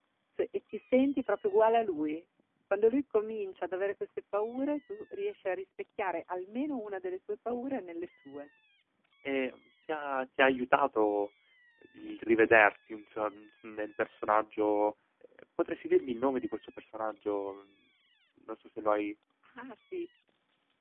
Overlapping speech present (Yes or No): No